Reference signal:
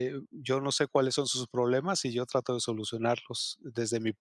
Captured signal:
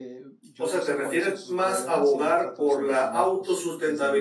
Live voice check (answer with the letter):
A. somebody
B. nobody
A